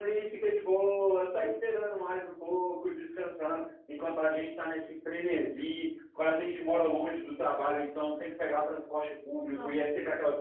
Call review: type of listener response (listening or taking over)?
listening